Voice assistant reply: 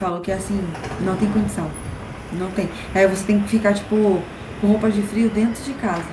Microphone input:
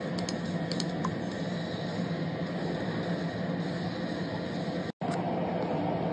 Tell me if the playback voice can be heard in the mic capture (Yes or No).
No